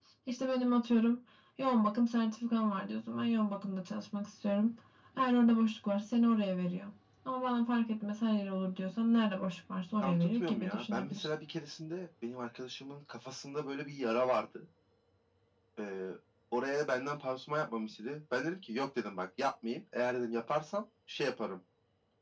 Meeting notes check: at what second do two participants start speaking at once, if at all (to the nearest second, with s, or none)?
10 s